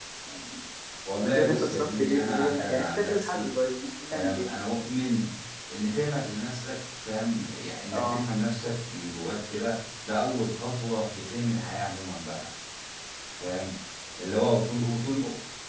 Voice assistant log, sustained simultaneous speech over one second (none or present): present